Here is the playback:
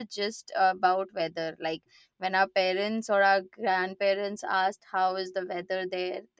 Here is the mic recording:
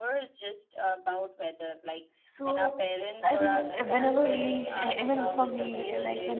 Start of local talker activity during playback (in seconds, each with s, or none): 2.2 s